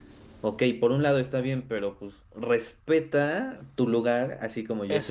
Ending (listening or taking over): taking over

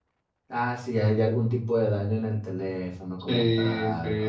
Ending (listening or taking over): taking over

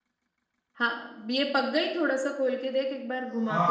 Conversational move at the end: taking over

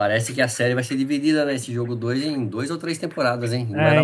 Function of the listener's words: taking over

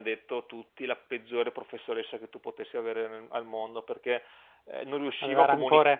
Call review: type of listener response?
listening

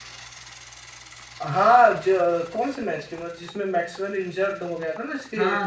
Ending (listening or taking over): taking over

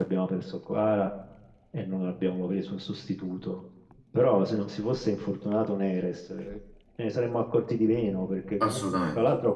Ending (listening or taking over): listening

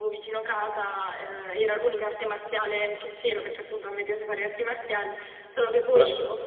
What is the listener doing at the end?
listening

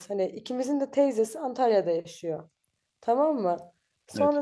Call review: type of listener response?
listening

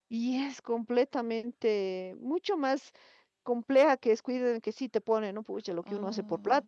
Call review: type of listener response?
listening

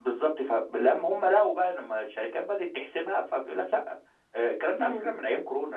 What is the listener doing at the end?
listening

